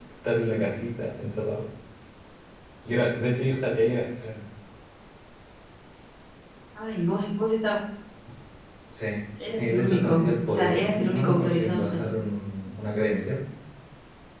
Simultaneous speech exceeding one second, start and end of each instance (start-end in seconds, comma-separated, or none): 9.6-12.1